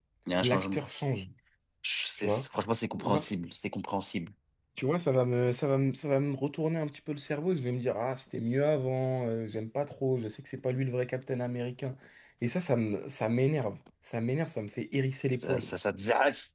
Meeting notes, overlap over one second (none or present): none